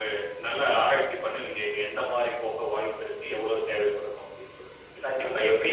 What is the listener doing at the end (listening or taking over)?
taking over